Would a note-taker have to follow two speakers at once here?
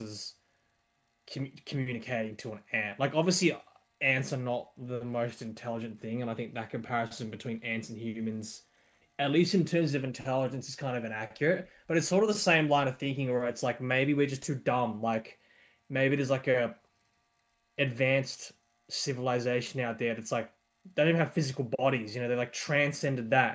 No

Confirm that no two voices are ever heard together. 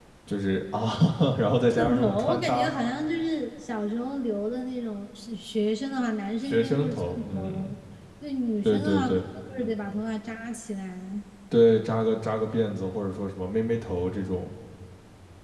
No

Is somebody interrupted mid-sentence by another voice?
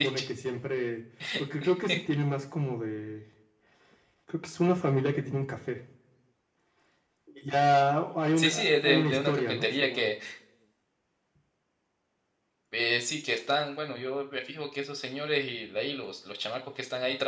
Yes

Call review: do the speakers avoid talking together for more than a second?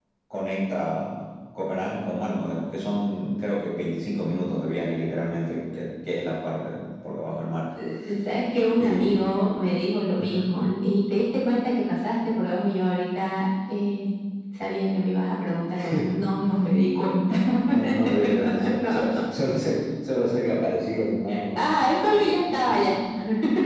No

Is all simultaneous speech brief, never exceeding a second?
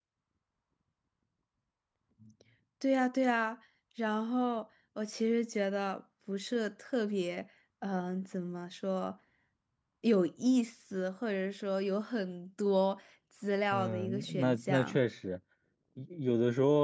No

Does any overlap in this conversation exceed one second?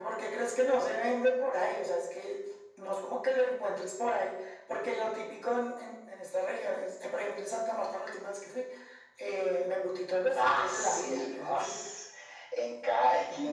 Yes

